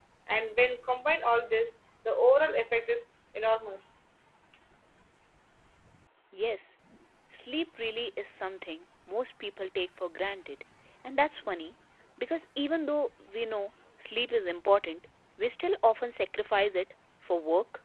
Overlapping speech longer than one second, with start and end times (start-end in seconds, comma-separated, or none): none